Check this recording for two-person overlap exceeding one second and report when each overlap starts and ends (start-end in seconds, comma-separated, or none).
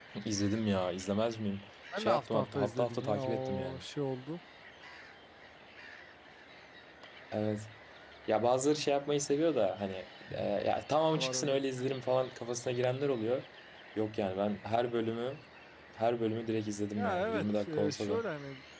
2.0-3.8, 17.0-18.2